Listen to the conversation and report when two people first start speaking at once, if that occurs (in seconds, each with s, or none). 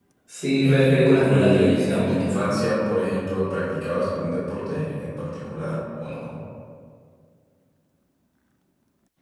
0.6 s